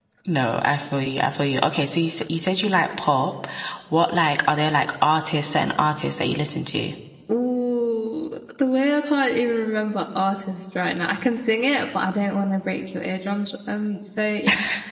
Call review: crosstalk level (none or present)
none